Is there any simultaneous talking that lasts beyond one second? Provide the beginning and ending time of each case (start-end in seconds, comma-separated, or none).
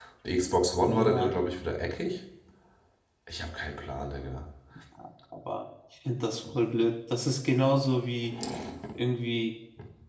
none